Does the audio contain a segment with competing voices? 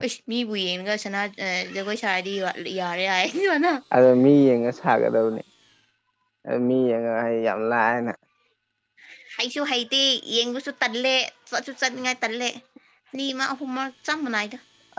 No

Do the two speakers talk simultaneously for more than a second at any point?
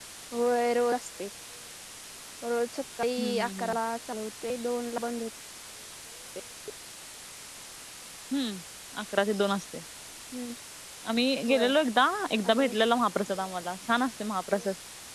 No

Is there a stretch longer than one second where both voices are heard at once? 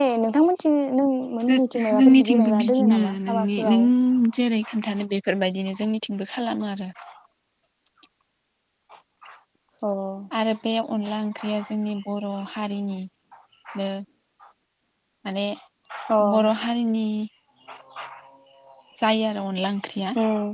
Yes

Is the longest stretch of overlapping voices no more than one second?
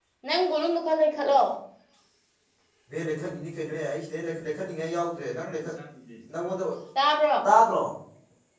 Yes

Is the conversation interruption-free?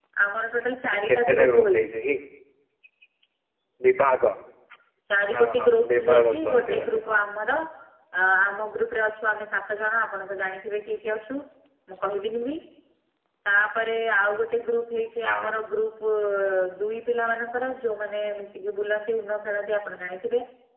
No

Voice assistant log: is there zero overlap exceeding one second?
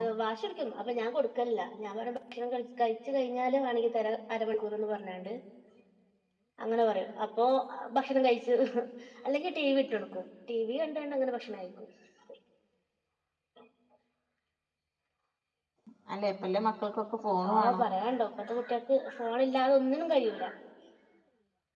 Yes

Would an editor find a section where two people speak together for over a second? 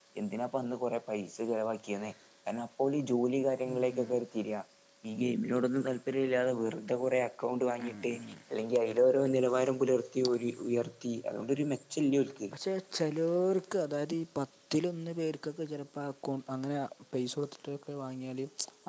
No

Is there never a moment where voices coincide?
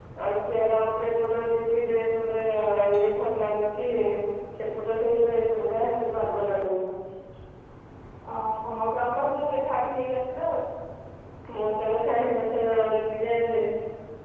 Yes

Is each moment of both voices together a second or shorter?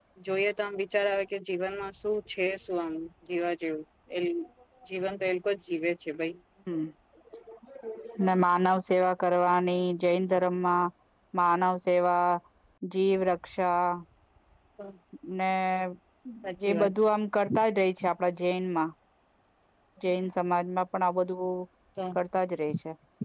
Yes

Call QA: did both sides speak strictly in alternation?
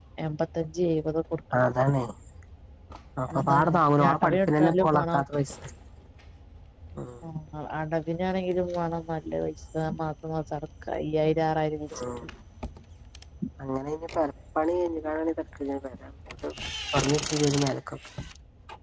No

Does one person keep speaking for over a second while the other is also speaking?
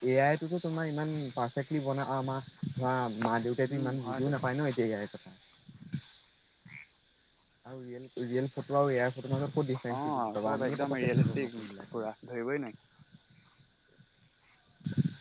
Yes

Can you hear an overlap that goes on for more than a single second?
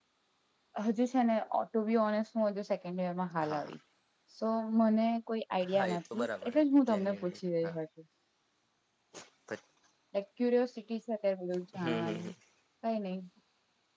Yes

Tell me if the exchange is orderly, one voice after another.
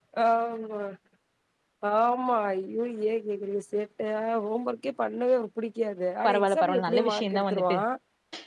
No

